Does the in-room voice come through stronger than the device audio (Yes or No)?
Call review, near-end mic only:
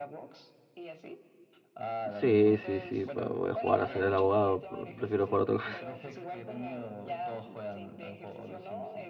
Yes